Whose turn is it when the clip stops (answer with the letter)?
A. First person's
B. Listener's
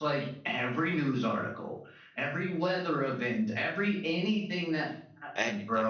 A